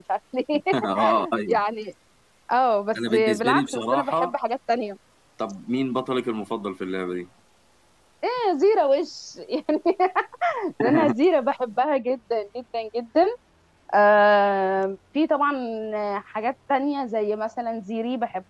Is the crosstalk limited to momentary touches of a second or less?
No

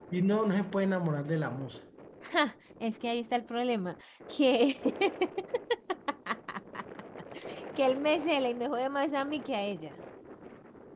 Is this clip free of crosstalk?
Yes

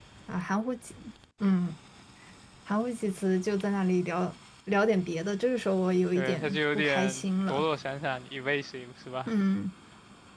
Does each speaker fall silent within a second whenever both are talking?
No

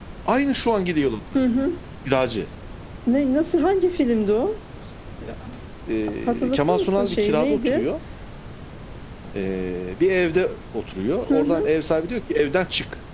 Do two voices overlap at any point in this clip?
Yes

